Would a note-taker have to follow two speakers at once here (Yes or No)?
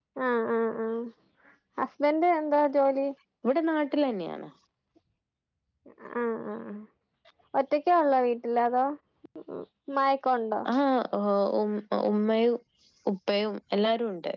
No